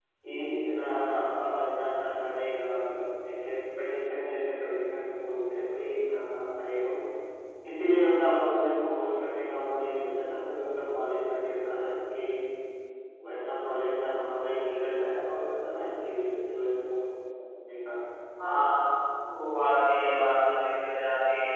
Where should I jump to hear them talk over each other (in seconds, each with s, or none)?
none